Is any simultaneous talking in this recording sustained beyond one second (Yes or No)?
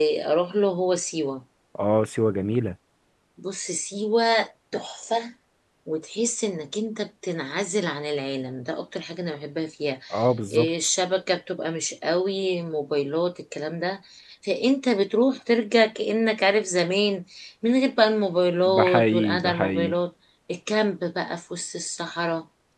Yes